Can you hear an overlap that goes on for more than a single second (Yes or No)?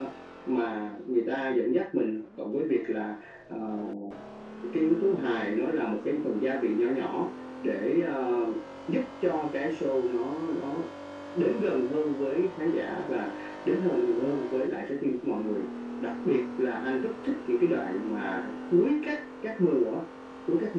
No